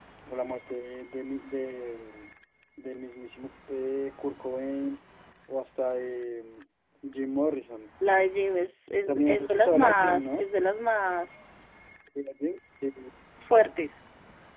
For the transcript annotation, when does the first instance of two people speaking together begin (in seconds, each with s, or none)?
9.1 s